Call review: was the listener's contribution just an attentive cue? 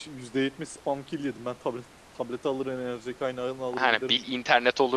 No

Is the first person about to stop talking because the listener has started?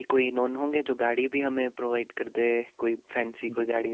Yes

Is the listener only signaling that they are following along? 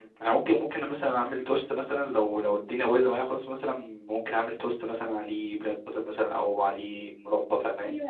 No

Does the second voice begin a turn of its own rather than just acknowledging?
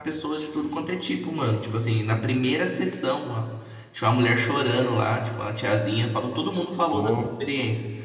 No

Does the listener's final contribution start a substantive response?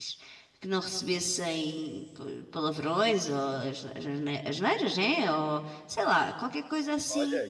Yes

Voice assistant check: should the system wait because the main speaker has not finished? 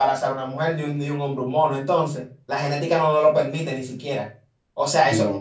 Yes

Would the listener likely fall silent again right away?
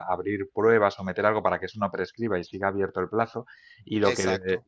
Yes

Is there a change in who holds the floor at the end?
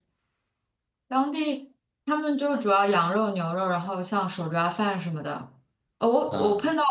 No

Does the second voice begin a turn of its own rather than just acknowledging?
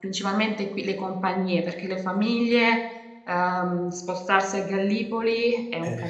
No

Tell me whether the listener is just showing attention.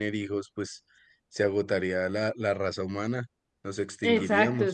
No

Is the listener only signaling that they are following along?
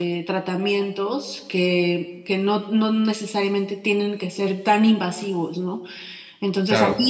Yes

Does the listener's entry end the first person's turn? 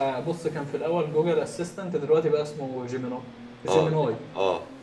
Yes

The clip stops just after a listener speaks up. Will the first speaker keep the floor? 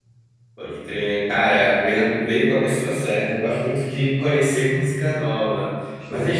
Yes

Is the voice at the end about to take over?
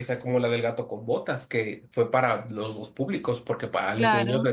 No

